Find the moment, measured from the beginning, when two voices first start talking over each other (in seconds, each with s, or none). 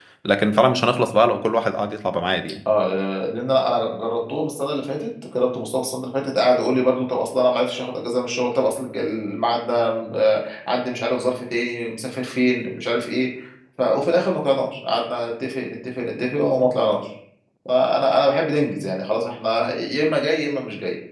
none